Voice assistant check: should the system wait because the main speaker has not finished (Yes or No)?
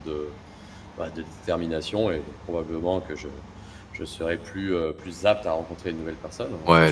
No